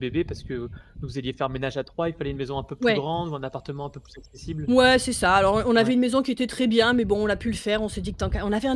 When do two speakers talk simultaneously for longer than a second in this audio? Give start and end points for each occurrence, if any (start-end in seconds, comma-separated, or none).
none